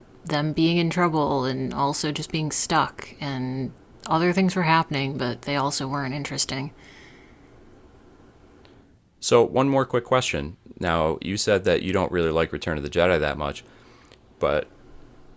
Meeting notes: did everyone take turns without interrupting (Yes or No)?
Yes